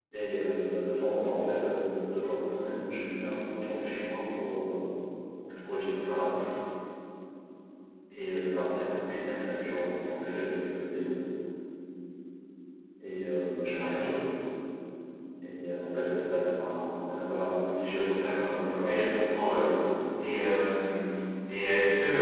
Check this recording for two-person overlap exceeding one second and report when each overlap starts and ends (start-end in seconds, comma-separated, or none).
18.1-19.6